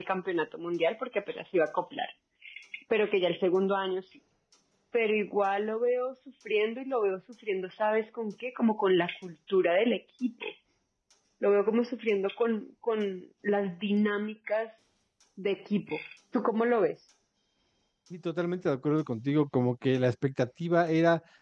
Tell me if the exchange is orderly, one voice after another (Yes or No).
Yes